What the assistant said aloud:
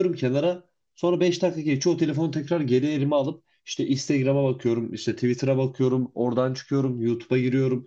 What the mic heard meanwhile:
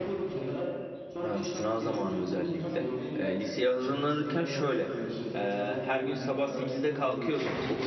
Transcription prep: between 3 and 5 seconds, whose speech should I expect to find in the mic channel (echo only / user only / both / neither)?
both